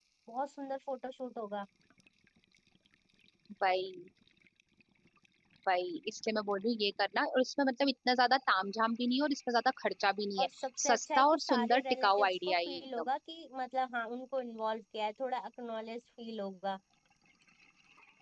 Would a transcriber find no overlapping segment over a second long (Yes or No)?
No